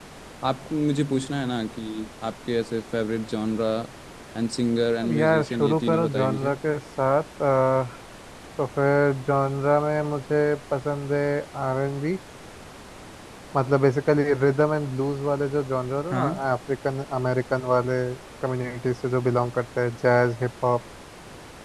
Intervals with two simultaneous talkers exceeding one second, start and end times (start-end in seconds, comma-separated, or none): 5.0-6.5